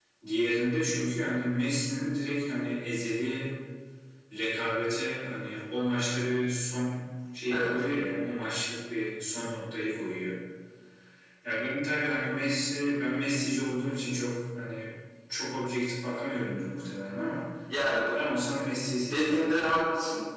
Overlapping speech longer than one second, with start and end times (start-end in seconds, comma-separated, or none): none